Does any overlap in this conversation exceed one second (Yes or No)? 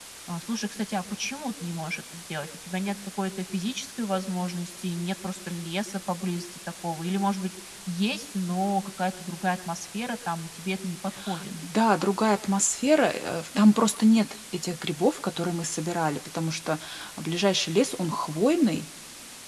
No